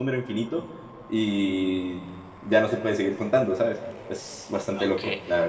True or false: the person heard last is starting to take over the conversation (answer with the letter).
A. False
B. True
B